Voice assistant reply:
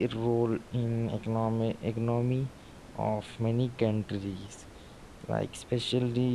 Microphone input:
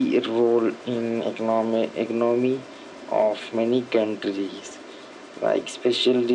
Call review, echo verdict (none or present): present